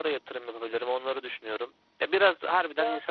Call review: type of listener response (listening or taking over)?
listening